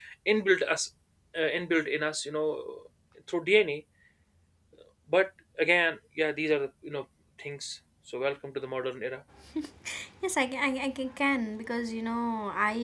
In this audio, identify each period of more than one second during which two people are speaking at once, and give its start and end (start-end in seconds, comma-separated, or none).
none